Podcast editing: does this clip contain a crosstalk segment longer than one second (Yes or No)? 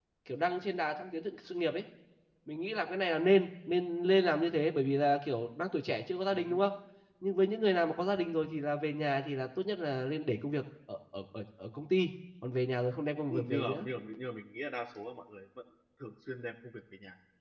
No